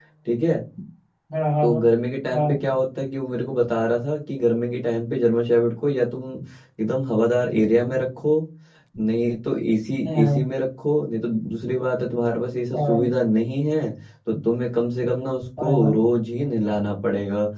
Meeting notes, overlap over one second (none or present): none